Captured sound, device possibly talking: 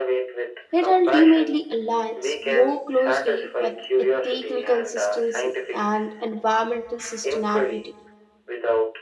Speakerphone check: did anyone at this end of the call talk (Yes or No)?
Yes